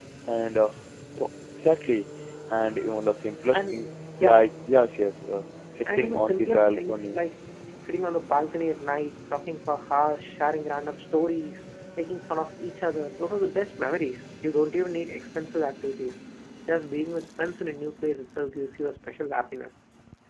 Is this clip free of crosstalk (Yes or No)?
No